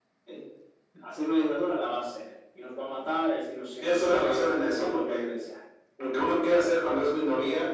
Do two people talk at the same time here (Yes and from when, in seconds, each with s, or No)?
Yes, from 3.8 s